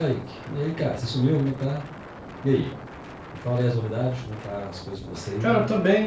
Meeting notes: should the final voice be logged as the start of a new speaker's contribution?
Yes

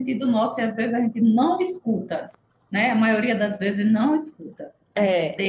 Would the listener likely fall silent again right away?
Yes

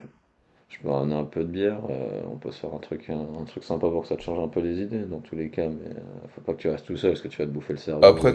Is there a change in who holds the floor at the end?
Yes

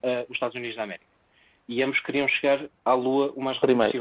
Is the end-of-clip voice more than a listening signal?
No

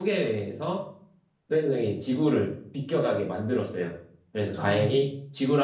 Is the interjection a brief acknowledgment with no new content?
Yes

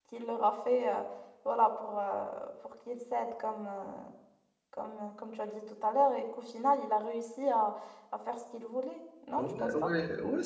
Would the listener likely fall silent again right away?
No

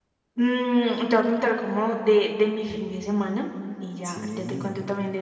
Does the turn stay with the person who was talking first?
Yes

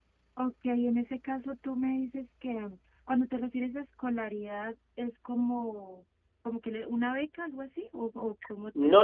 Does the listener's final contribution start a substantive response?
Yes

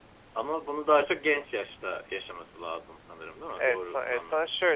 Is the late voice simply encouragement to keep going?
No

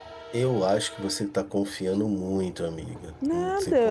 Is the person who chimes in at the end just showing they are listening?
No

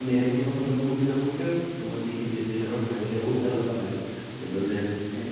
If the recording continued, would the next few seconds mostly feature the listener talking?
No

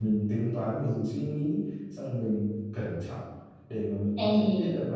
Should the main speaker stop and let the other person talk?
No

